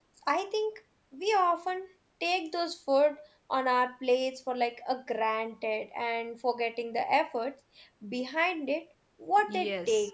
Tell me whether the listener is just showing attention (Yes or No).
No